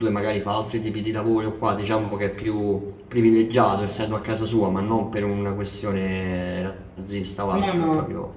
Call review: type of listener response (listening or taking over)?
listening